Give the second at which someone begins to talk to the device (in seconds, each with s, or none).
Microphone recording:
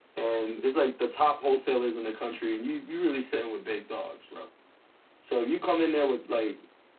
none